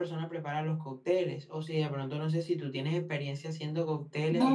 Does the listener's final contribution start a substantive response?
Yes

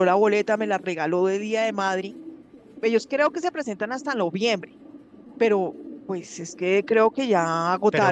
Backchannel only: No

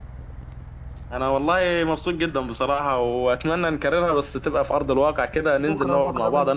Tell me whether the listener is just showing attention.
No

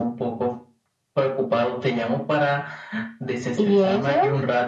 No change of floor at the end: Yes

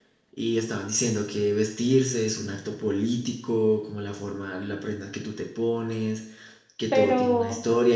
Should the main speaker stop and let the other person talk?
No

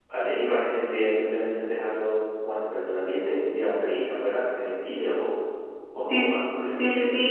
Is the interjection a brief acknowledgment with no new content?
No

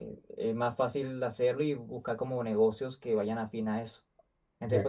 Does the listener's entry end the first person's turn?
Yes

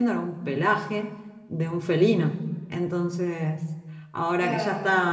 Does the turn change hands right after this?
No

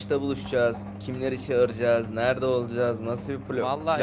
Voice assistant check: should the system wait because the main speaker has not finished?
No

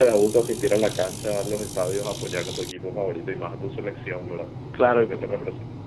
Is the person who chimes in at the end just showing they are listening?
No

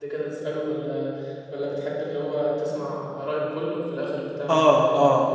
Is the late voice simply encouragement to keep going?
No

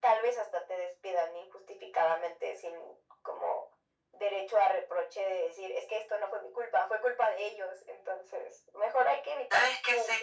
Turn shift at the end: Yes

